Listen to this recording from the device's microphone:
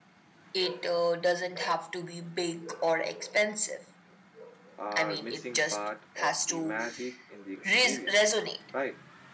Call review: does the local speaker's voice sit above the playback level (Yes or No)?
No